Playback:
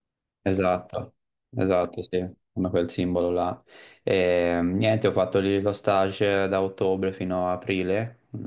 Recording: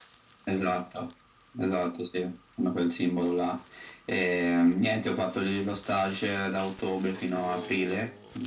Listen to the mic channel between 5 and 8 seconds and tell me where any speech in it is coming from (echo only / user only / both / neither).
both